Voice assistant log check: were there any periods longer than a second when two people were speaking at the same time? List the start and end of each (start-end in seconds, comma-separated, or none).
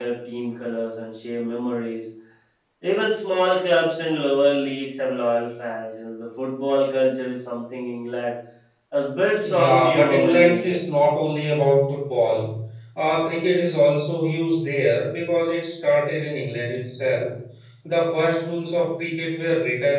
9.4-10.8